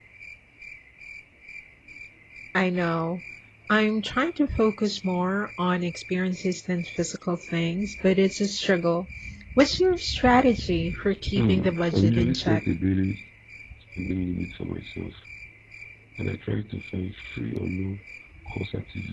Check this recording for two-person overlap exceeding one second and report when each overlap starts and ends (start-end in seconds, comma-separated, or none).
11.4-12.6